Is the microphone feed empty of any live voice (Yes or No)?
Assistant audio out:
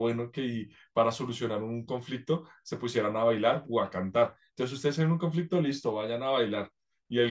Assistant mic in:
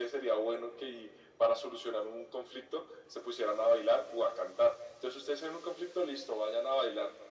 Yes